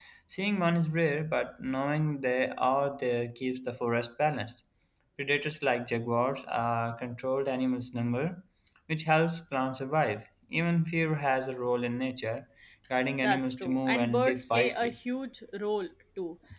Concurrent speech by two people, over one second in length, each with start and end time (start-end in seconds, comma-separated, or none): 13.2-15.0